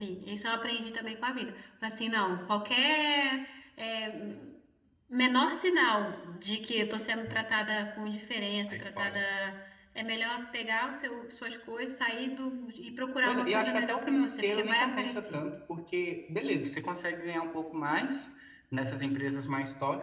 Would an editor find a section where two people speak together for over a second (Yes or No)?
Yes